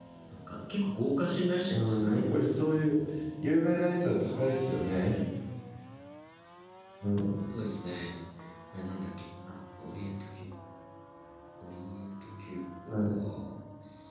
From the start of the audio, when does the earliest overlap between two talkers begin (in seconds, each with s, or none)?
1.7 s